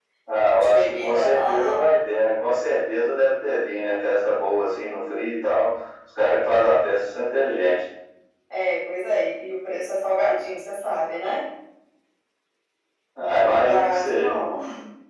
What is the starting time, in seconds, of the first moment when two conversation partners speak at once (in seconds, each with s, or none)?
0.5 s